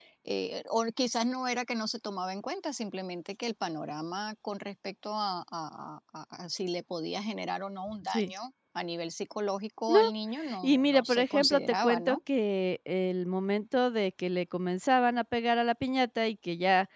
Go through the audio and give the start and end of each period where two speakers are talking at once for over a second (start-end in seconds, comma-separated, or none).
10.6-12.2